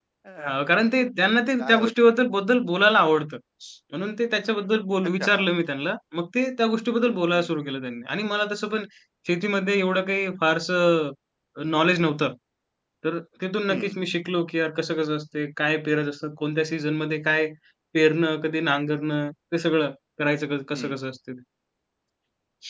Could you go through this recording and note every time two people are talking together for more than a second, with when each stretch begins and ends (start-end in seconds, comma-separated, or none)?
none